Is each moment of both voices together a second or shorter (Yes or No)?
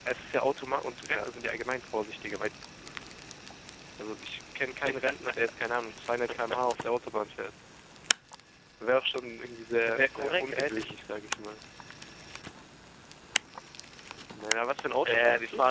No